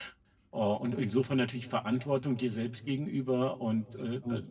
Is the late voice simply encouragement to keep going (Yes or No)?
Yes